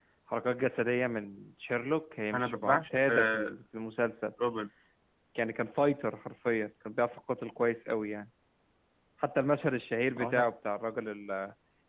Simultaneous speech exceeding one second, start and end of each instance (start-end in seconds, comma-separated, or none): 2.3-3.5